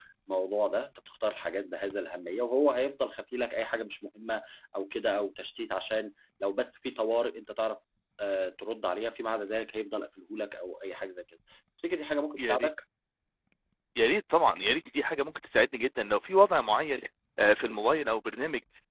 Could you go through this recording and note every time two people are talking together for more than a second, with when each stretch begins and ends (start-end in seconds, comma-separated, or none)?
none